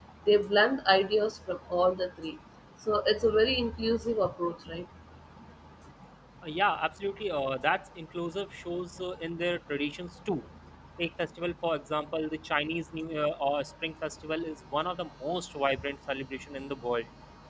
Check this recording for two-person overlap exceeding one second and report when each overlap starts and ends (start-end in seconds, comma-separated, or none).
none